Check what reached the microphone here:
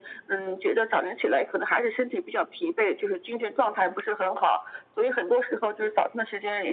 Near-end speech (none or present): none